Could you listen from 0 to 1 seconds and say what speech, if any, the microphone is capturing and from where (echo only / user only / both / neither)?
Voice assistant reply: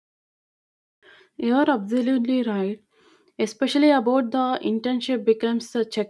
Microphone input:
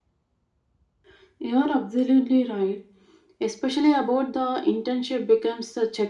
neither